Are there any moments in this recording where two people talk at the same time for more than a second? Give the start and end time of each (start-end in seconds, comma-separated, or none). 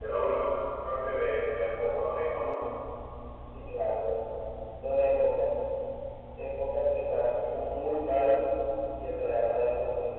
none